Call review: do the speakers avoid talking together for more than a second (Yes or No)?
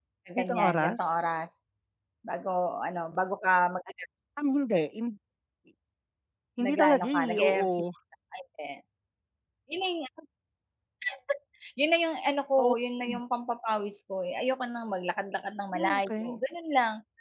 No